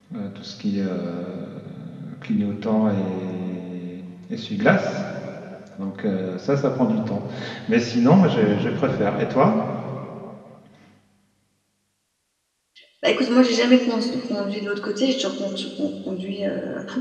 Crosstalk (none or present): none